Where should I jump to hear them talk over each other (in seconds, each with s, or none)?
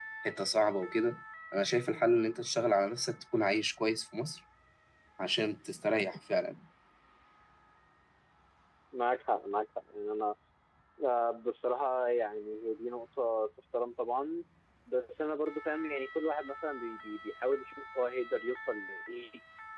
none